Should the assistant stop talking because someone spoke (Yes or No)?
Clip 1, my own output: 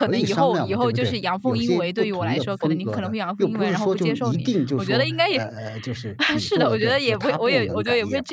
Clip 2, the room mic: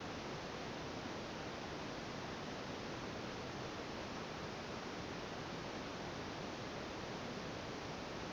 No